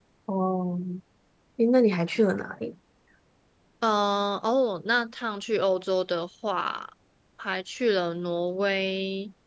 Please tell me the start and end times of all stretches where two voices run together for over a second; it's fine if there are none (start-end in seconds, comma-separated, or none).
none